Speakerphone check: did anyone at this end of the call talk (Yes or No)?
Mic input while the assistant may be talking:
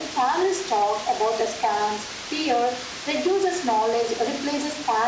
No